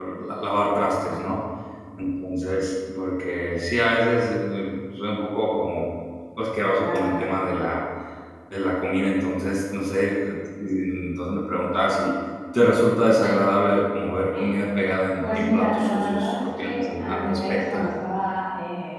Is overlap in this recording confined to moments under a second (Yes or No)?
No